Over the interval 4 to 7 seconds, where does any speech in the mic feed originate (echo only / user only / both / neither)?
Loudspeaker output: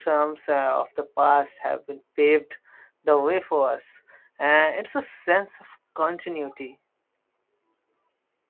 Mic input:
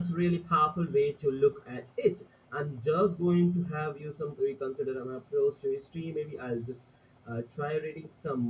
user only